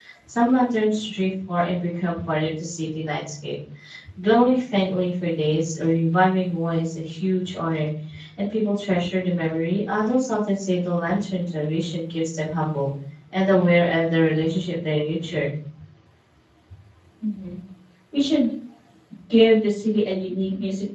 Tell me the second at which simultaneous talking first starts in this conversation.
none

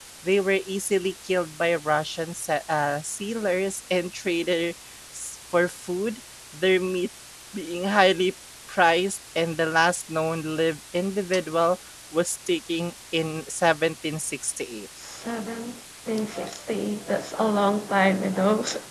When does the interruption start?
none

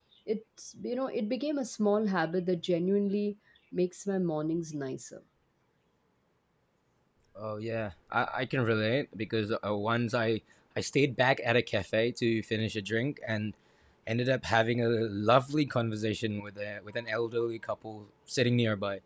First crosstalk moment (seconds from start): none

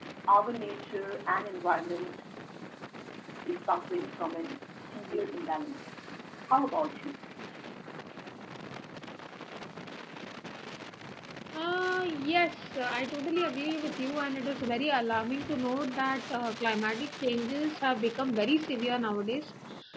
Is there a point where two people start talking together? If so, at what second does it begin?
none

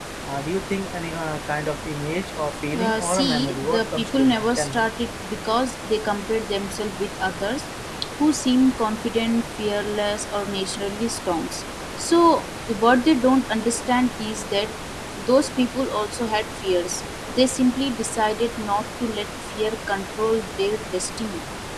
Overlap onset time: 2.7 s

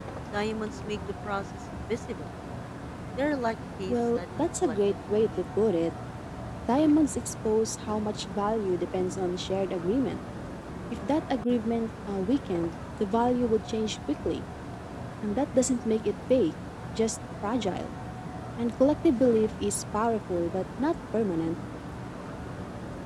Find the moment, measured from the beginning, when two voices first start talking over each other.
3.9 s

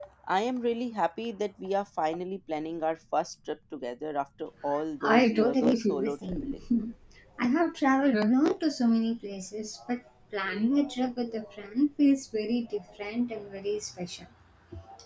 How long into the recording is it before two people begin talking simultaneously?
5.0 s

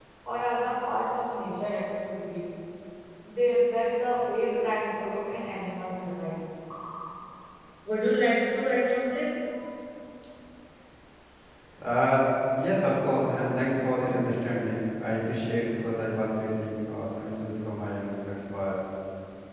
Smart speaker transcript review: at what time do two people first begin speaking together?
none

